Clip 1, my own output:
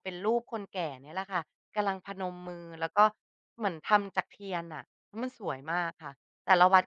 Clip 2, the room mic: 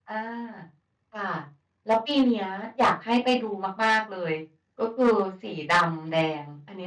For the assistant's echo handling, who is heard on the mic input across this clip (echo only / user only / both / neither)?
user only